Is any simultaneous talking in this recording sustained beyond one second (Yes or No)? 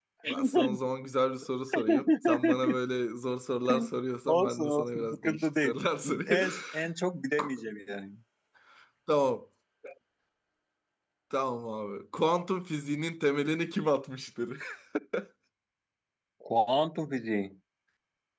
Yes